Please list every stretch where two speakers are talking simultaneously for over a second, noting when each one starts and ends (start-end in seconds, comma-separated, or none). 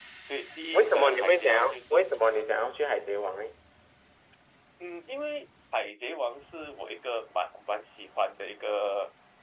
0.7-1.9